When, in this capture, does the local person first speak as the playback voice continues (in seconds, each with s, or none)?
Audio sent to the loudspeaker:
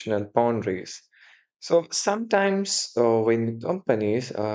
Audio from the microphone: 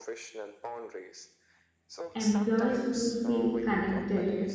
2.1 s